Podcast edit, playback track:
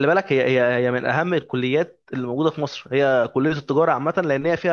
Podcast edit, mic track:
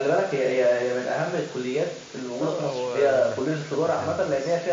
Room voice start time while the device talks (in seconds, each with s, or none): 2.4 s